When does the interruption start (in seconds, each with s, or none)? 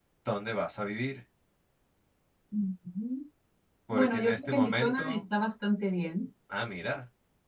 3.9 s